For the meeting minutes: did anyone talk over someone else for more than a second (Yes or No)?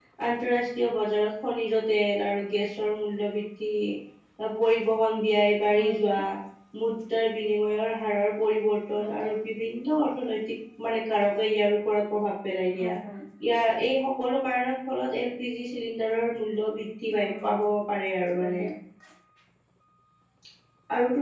No